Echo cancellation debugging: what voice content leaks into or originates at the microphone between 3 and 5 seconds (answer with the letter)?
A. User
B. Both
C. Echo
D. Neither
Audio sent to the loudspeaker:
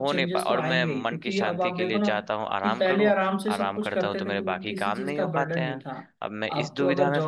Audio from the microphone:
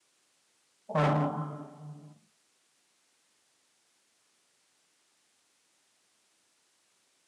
D